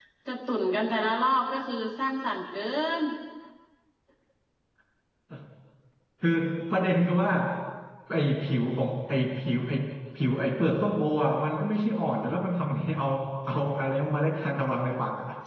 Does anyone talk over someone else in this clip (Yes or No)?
No